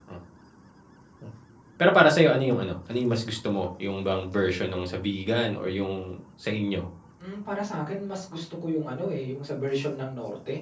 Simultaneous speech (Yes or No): No